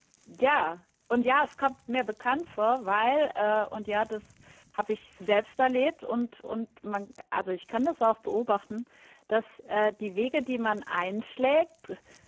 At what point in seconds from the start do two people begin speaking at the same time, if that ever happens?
none

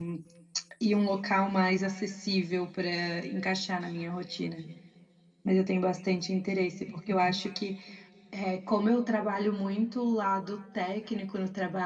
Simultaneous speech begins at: none

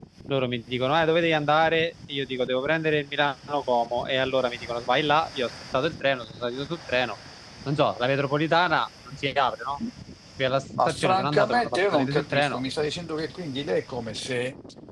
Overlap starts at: 10.9 s

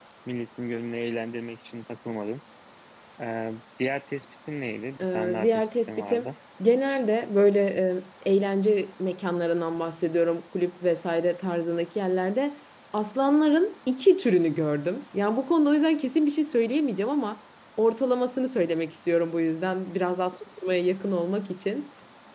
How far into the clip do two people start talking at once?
5.0 s

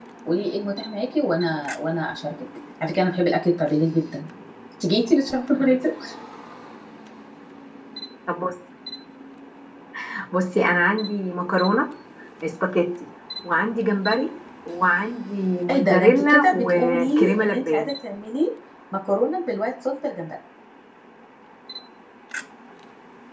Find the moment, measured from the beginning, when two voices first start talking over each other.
15.7 s

